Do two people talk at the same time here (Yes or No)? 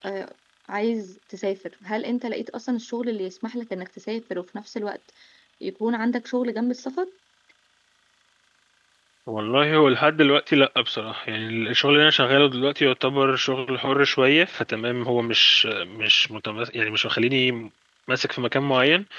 No